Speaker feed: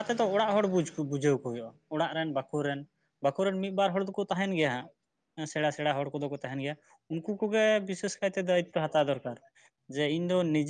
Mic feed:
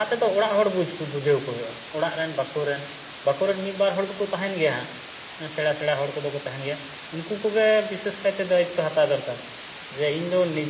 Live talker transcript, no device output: none

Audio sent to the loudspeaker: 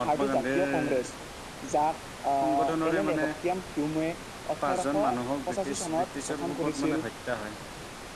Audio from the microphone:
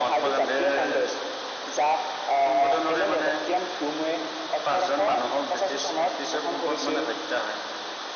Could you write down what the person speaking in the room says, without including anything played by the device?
none

